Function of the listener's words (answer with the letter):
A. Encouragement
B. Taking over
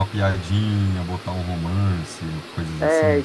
B